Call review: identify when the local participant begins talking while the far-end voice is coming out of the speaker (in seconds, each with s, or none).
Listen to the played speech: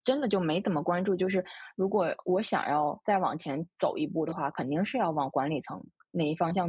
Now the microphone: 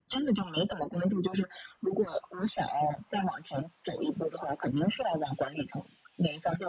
none